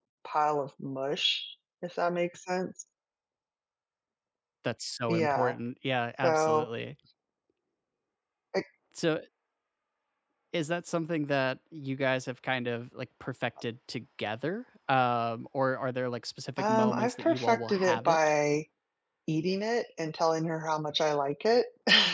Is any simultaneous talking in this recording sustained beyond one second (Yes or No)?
Yes